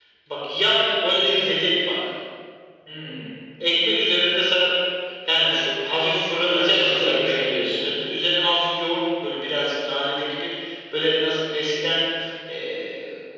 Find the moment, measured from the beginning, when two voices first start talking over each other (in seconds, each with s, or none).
6.4 s